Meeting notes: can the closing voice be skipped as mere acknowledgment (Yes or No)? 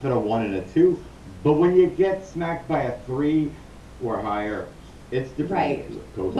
No